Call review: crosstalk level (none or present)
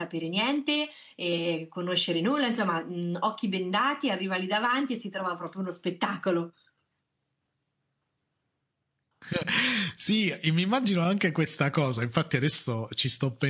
none